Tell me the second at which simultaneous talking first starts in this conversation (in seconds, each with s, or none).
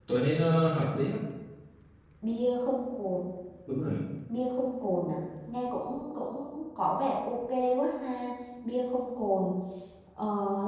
none